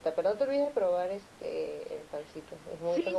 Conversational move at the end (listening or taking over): taking over